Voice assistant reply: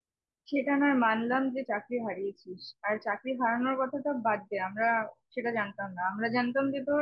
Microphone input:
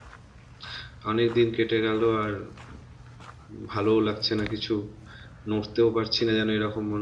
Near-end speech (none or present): present